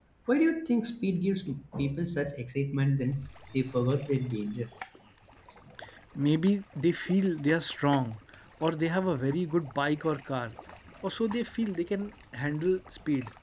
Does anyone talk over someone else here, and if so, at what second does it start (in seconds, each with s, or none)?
none